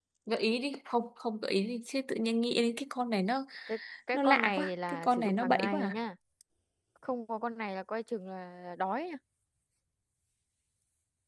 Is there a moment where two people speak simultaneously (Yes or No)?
Yes